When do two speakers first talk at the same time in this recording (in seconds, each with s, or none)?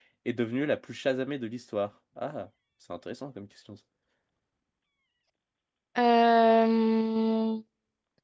none